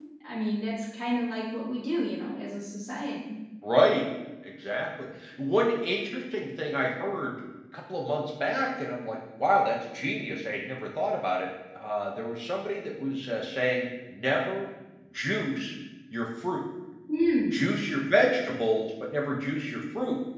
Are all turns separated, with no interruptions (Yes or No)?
Yes